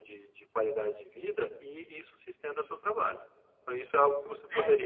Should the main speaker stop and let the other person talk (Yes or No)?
No